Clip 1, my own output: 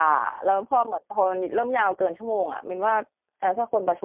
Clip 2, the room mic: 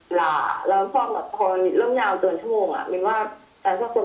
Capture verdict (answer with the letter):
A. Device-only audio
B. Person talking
A